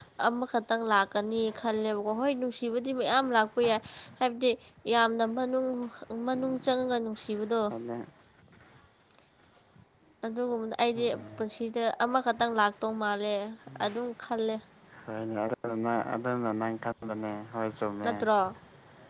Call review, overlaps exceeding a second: none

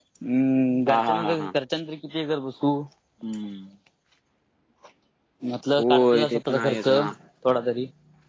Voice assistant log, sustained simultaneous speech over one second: present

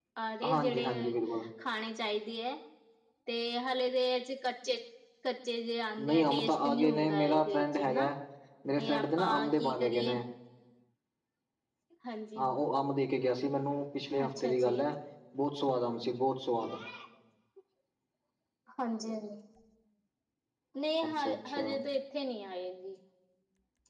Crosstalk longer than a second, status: present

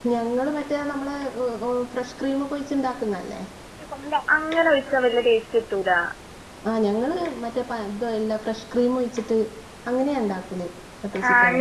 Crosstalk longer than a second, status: none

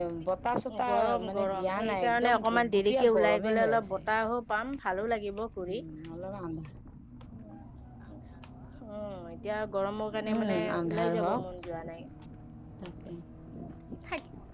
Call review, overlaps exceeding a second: present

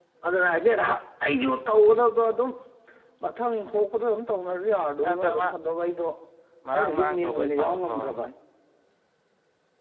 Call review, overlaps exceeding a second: present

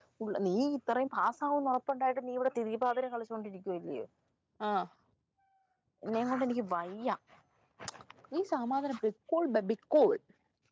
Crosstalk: none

